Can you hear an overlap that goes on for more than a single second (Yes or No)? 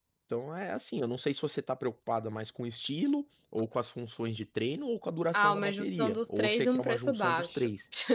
Yes